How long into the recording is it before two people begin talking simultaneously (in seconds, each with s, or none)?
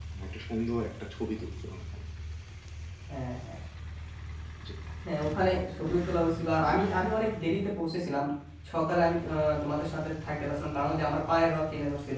none